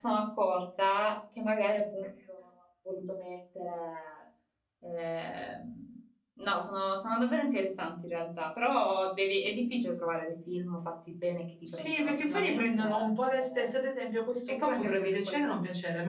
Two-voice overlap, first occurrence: 11.7 s

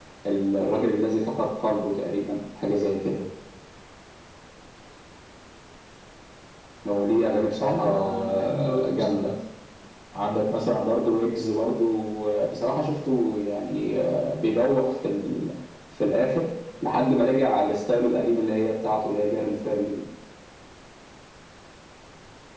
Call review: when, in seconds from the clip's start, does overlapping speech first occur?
7.6 s

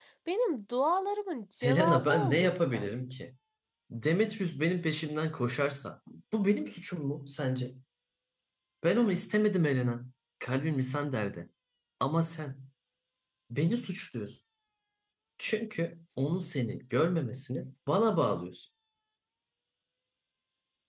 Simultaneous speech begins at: 1.6 s

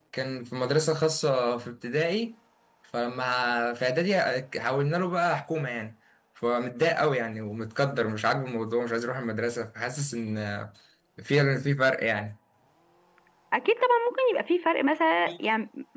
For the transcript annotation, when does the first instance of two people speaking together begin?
none

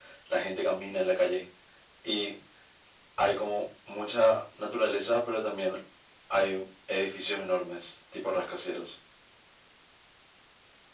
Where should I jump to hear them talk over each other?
none

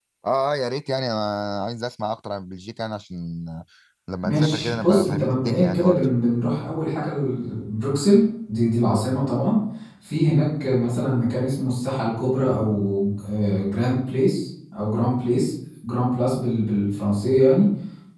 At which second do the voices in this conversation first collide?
4.2 s

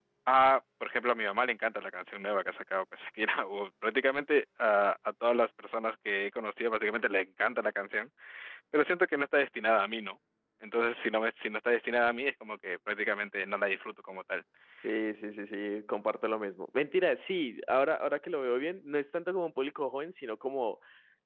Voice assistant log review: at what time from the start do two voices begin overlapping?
none

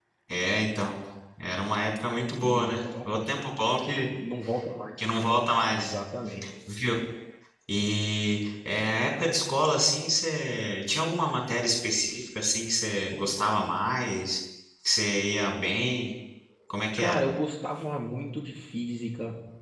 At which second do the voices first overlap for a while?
2.4 s

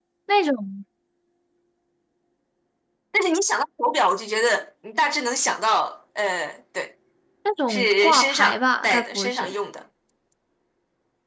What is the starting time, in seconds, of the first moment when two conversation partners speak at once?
7.7 s

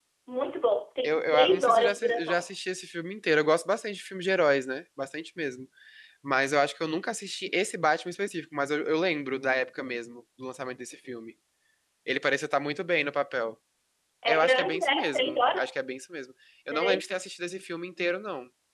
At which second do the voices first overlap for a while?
1.0 s

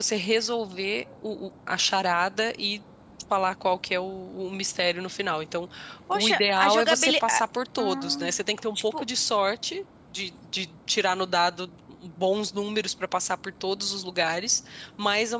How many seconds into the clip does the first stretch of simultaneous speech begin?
6.1 s

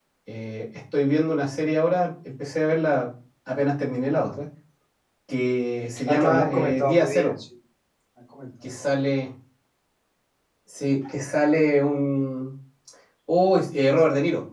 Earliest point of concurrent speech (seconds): 6.1 s

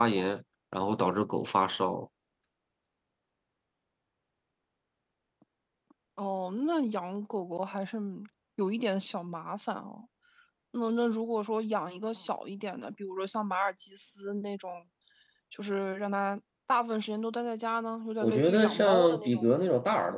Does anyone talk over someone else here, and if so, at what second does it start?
18.2 s

